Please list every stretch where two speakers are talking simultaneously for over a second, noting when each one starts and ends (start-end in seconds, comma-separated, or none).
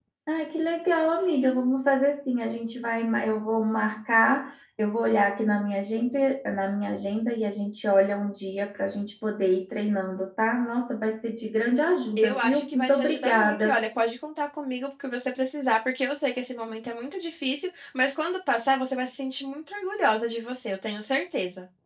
12.2-13.8